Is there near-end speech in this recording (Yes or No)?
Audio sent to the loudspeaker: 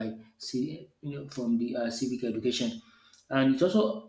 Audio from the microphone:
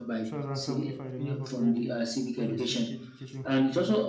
Yes